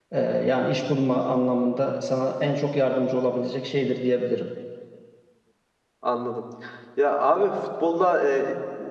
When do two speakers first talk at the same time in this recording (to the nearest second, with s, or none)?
none